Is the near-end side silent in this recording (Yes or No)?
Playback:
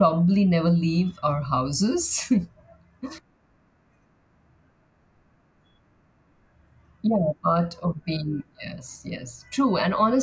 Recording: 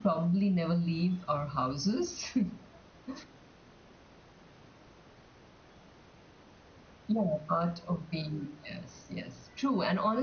Yes